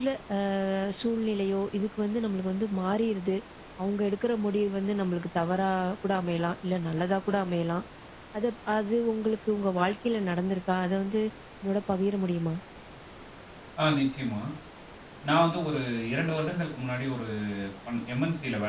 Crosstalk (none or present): none